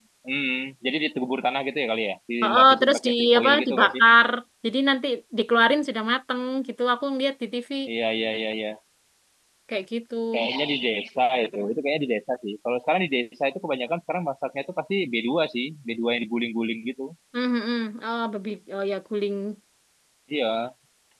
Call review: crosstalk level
present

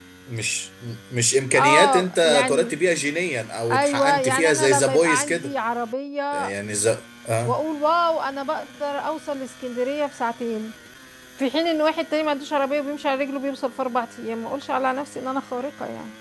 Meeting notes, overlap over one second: present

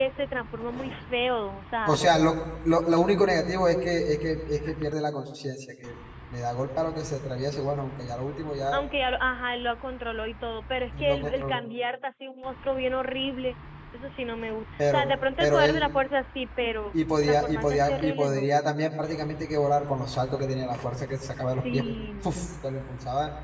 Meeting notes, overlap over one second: present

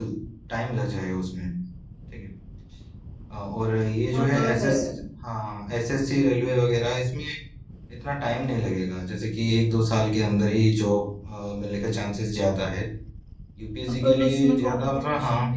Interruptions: present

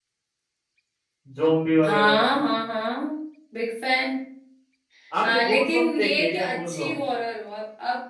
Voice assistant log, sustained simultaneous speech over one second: present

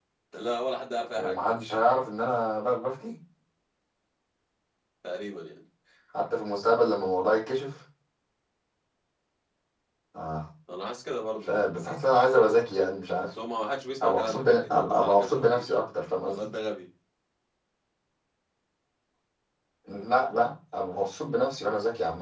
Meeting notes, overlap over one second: present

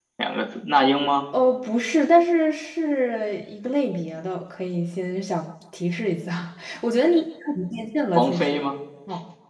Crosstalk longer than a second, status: none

